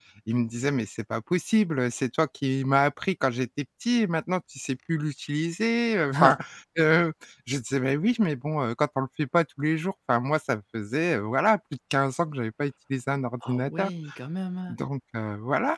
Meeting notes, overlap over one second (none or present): none